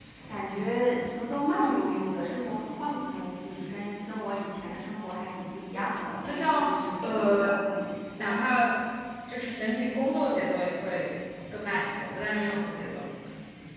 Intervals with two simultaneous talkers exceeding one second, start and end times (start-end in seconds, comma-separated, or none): 6.3-7.7